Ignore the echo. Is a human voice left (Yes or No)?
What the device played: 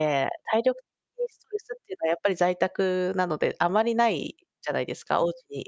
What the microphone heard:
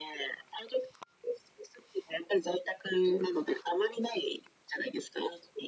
No